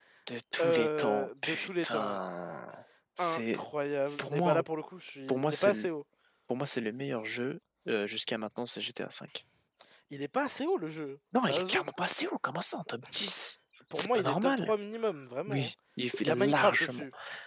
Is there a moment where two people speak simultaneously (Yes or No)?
Yes